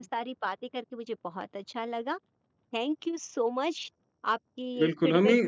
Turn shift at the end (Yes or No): Yes